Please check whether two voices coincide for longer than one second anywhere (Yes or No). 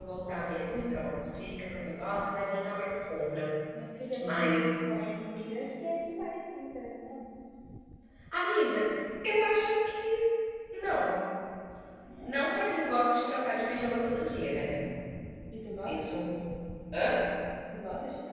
No